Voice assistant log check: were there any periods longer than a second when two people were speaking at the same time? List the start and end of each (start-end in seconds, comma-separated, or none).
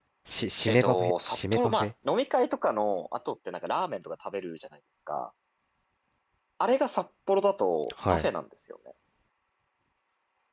0.7-1.9